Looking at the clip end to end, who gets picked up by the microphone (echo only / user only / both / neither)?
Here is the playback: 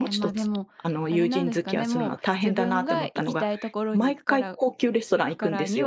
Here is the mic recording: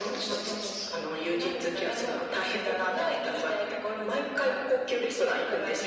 echo only